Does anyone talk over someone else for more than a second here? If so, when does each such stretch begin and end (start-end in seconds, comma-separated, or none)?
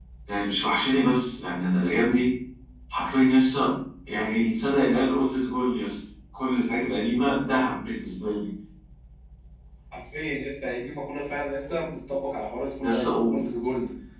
none